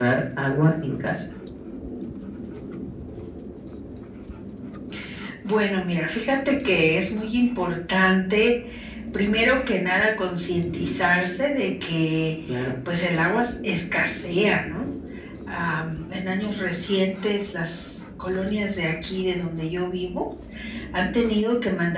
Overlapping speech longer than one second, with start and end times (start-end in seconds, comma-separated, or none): none